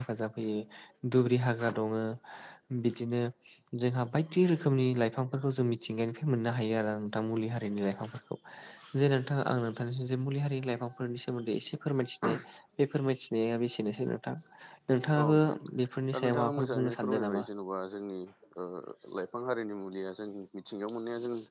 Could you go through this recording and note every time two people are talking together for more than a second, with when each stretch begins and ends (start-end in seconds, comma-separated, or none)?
16.1-17.4